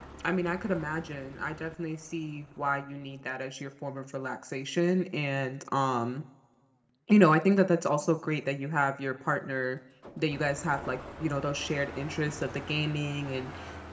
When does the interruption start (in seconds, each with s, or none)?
none